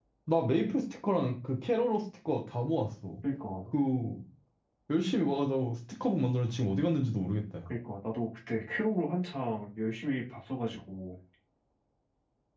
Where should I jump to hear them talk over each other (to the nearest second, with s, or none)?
none